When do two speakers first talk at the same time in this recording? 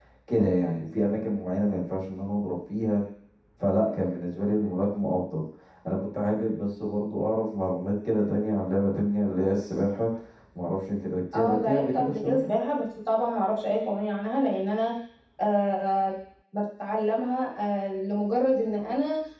11.3 s

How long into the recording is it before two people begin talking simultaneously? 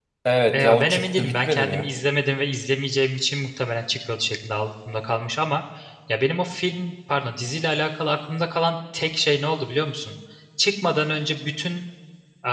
0.6 s

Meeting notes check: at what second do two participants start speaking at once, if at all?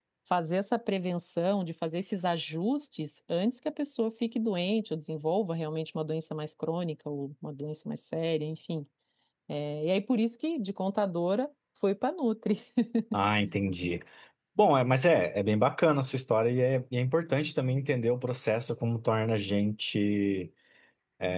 none

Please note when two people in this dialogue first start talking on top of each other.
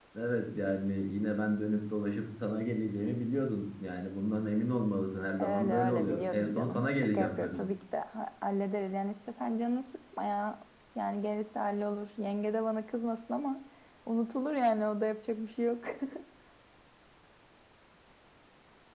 5.4 s

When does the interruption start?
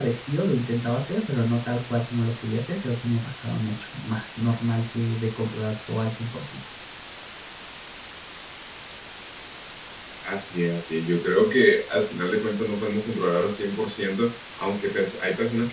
none

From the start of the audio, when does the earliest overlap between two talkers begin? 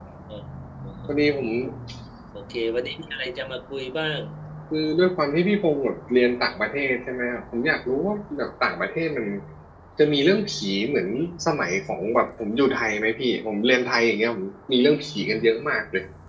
none

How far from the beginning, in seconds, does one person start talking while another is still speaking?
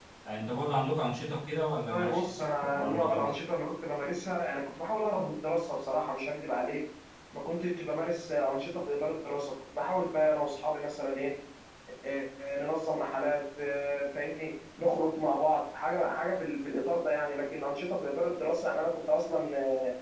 1.9 s

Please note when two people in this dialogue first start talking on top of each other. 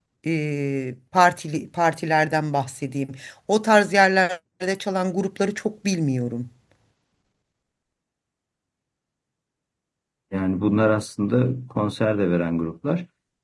none

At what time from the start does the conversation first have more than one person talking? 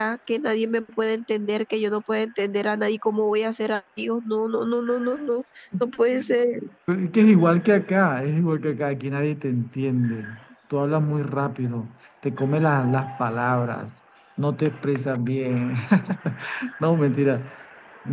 none

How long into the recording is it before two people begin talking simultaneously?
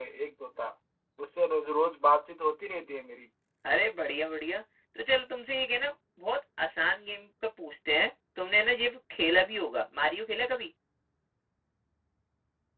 none

